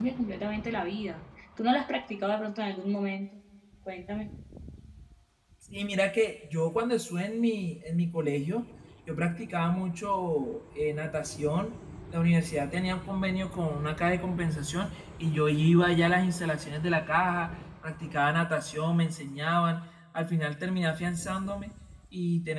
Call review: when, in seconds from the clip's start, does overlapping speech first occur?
none

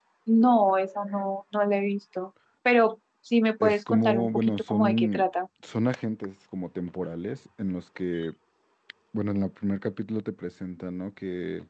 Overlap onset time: 4 s

